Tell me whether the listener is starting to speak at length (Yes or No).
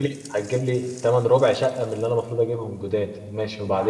Yes